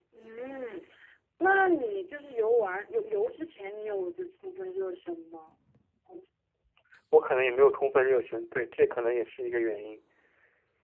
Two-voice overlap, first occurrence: none

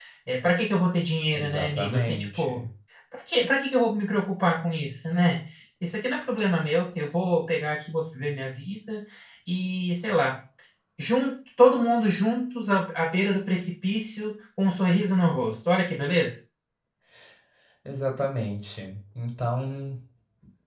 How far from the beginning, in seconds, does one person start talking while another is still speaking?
1 s

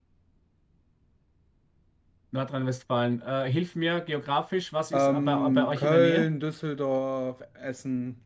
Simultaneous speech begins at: 5 s

